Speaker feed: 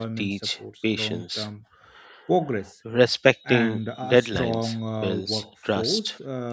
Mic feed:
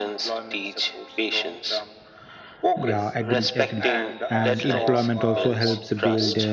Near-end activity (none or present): present